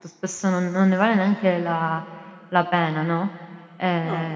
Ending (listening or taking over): listening